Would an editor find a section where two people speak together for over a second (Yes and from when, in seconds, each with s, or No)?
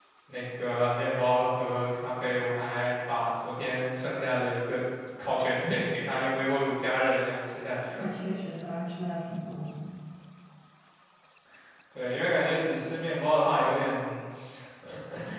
No